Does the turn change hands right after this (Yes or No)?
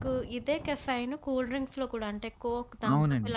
No